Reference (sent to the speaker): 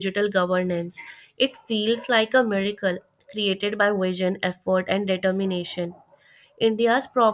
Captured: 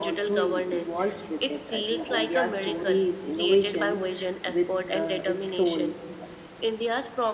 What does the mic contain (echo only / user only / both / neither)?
both